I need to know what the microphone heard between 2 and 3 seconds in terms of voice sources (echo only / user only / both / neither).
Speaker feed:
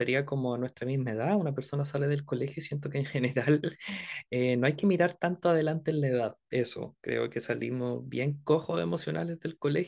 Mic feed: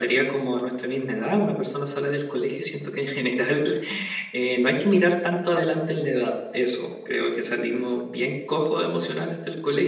echo only